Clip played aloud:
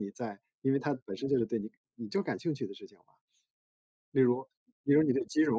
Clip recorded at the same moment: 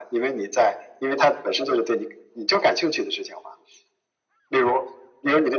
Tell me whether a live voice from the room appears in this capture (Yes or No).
No